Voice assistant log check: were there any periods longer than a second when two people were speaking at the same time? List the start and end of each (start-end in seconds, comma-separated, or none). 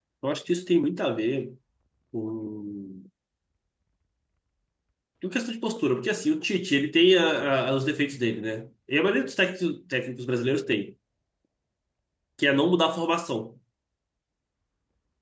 none